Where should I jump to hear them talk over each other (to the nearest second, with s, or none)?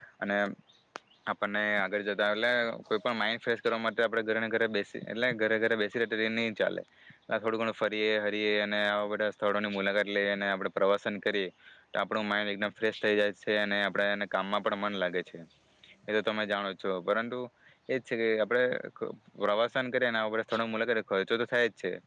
none